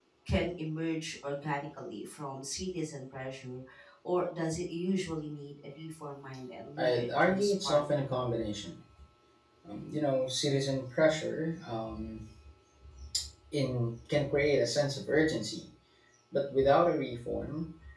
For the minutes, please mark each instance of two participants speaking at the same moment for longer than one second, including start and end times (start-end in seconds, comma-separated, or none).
6.8-8.1